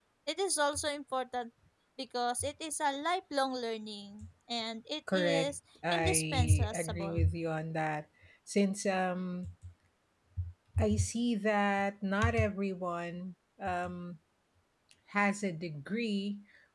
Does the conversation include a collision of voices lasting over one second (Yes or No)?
Yes